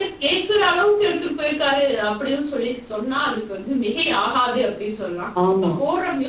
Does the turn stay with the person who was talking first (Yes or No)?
Yes